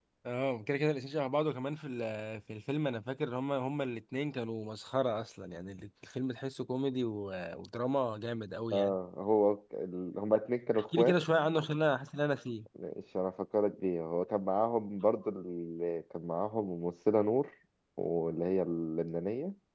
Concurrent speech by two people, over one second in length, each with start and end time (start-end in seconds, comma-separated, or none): none